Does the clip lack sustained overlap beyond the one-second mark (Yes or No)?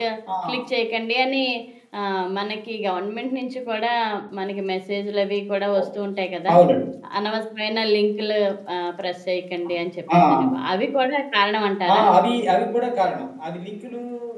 Yes